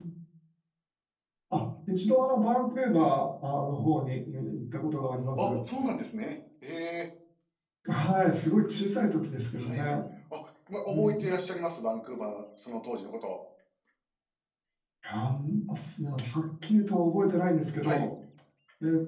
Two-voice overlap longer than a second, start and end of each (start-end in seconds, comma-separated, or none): none